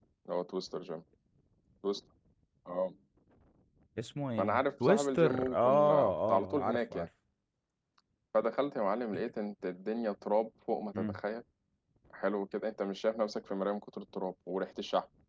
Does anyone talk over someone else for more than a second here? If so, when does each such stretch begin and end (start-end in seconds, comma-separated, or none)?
4.4-7.1